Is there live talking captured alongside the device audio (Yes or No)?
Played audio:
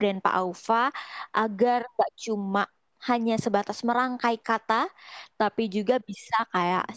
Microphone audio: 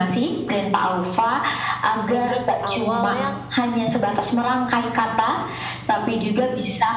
Yes